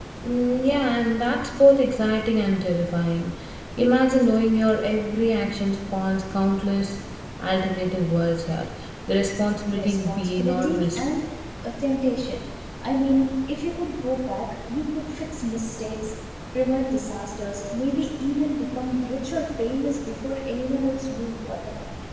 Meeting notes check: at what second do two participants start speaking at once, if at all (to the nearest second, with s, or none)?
10 s